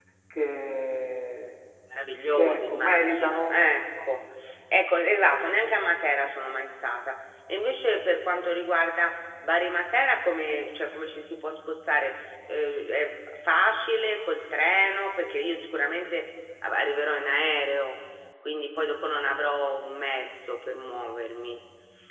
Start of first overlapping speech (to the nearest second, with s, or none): 2 s